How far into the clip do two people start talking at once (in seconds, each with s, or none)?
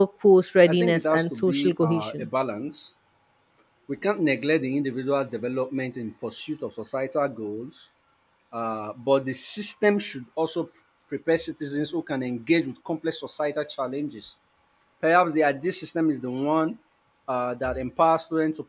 0.6 s